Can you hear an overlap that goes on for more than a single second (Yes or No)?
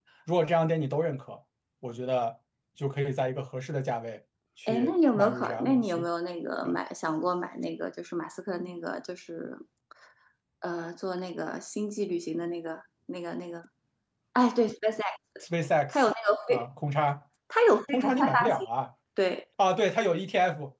Yes